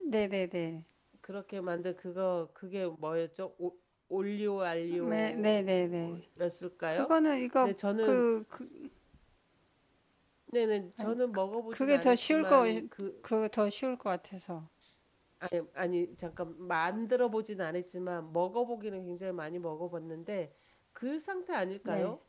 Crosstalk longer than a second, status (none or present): present